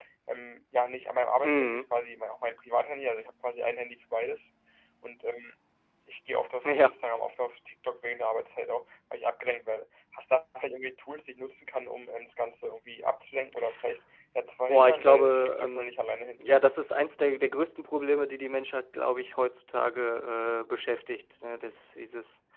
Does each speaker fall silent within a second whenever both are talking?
No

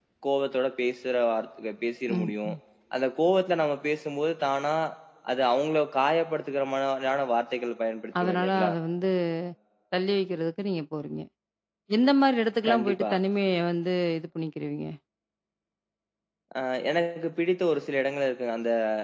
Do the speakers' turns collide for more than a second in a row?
No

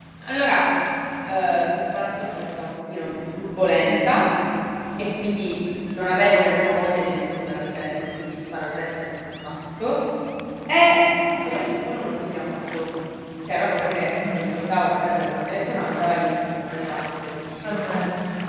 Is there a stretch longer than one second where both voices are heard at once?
No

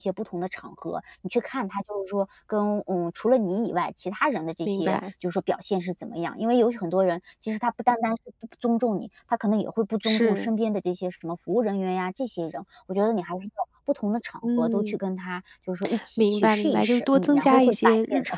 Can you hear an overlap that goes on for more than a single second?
Yes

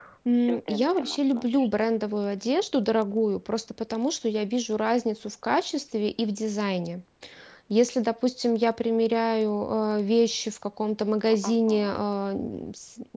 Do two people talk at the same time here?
Yes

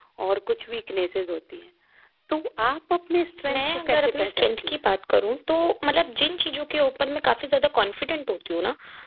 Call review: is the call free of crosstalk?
No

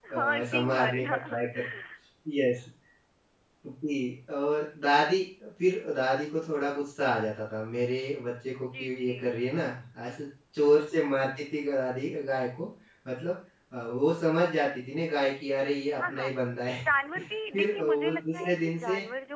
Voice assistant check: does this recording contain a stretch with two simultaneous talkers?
Yes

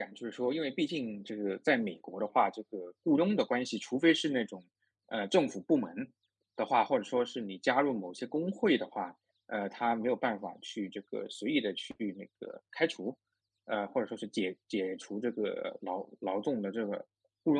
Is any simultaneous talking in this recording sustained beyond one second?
No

